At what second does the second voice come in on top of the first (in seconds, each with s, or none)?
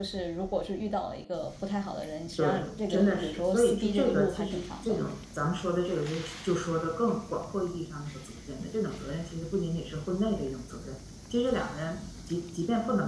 2.4 s